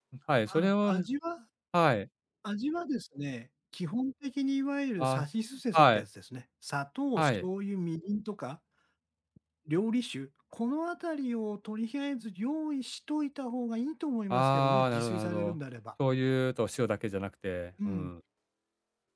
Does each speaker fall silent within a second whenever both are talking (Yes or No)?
No